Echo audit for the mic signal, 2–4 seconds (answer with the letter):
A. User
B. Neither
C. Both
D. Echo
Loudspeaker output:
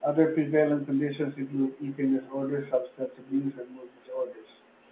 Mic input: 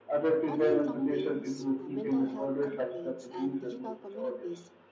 C